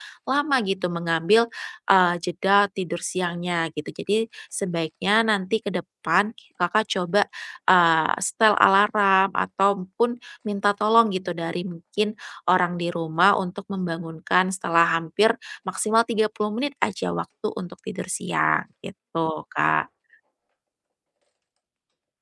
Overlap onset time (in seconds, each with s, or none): none